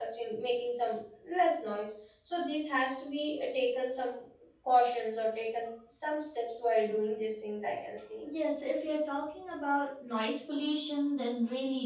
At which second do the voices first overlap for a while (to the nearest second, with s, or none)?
none